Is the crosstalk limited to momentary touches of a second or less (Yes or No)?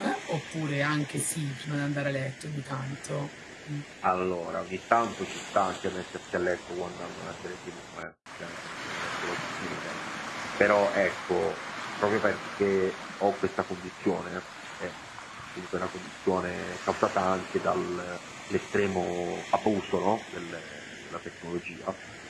Yes